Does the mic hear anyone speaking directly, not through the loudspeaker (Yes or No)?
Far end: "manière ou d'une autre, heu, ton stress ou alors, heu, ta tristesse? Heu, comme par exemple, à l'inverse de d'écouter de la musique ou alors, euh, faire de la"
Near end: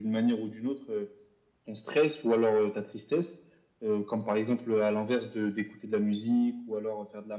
No